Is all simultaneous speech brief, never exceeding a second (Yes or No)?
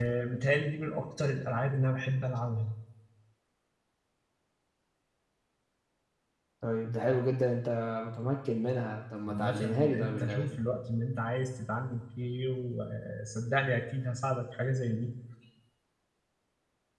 No